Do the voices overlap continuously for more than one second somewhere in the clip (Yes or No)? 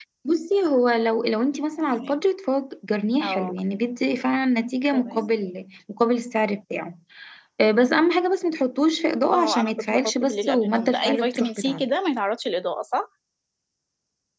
Yes